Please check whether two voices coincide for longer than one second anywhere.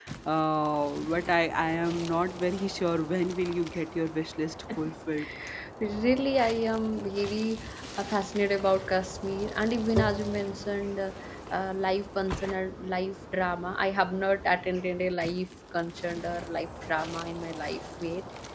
No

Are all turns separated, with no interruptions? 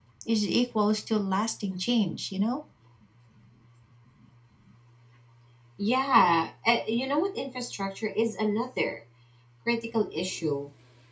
Yes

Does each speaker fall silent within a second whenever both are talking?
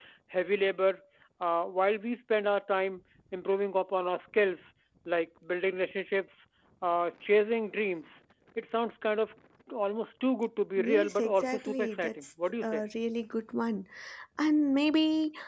No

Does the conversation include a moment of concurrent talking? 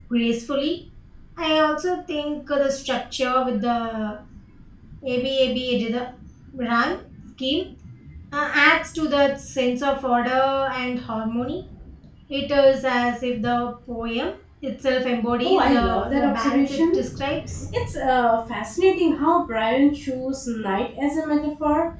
Yes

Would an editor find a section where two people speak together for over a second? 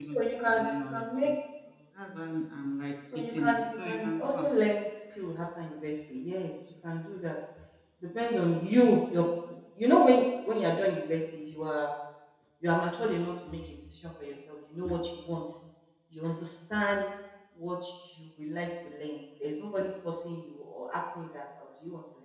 Yes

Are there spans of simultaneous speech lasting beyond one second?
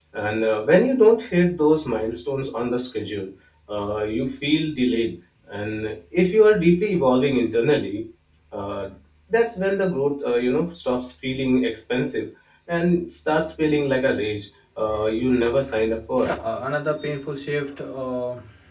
No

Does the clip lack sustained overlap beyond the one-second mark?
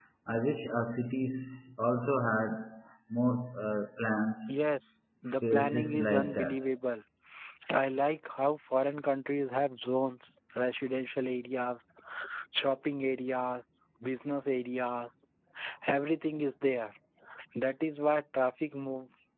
No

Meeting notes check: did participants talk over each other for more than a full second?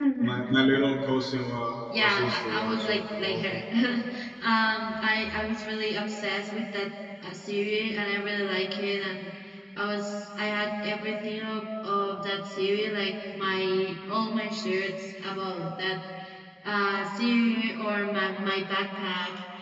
Yes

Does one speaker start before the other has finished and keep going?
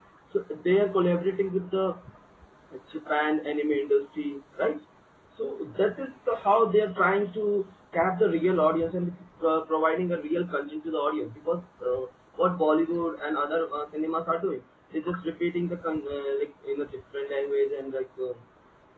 No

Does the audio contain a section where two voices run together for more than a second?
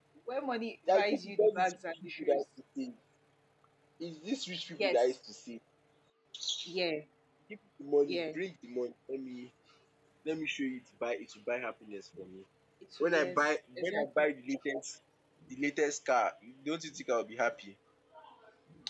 Yes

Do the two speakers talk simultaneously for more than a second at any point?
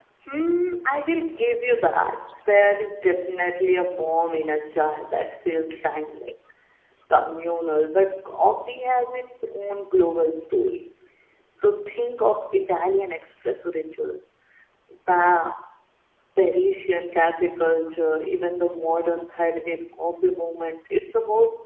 No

